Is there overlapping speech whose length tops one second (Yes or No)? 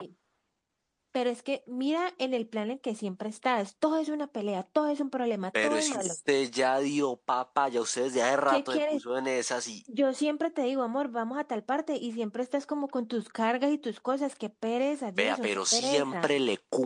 Yes